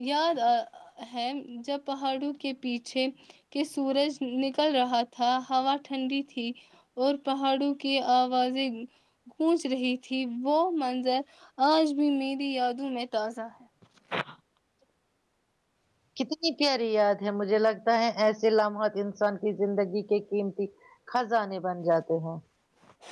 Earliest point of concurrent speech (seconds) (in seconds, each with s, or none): none